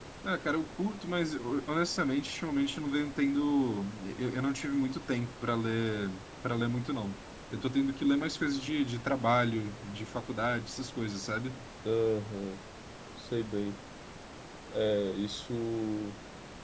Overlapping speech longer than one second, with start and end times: none

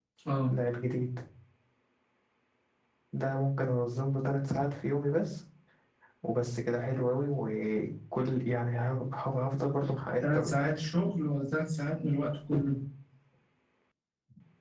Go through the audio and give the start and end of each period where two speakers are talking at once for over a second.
none

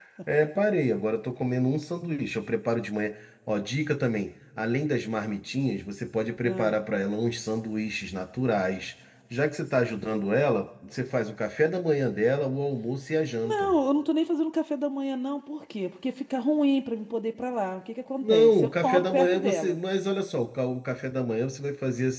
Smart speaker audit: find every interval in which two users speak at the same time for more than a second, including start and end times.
18.2-19.8

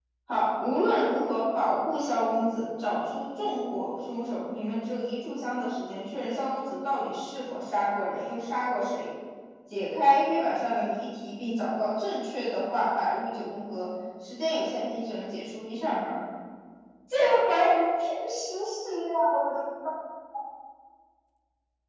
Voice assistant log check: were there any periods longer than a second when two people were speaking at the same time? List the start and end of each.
none

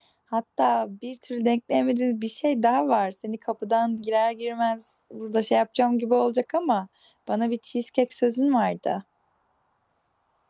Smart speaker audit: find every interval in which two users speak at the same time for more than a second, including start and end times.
none

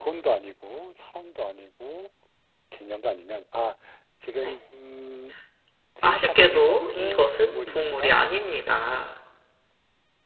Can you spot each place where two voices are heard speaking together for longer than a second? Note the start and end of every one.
6.0-8.1

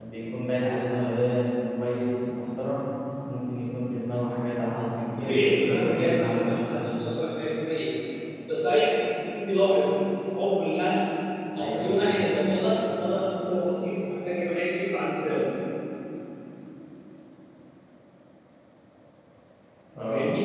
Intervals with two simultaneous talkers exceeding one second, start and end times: 5.2-6.6

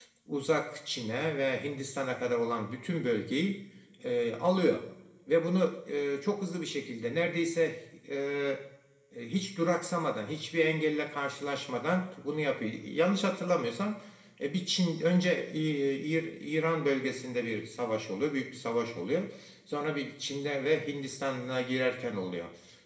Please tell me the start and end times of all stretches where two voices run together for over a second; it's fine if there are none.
none

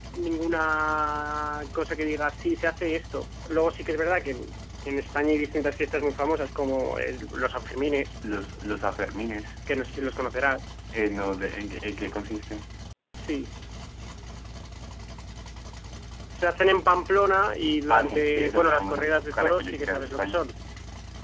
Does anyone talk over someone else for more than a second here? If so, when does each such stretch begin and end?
17.9-20.4

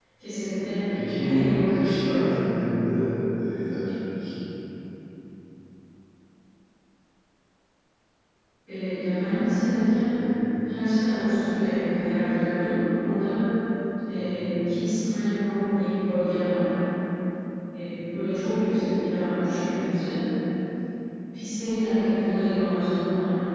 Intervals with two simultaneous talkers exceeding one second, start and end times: 0.9-2.3

